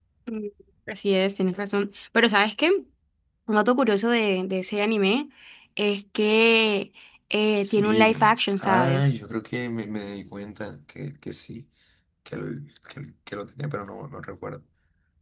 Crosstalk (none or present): present